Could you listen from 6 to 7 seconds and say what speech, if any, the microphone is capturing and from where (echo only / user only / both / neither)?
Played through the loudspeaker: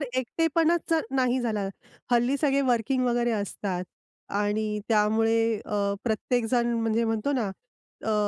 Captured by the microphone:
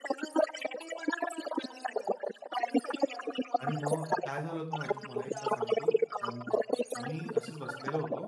both